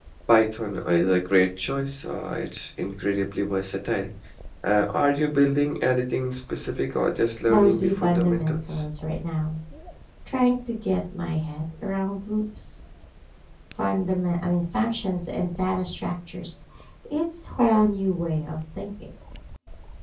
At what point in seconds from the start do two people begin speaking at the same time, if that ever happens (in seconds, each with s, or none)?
7.5 s